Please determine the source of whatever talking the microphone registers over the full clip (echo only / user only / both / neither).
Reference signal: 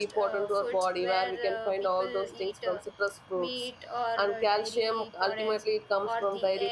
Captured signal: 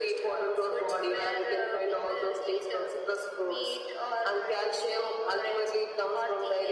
echo only